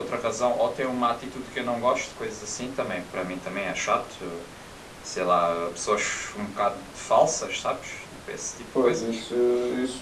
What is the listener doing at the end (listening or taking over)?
taking over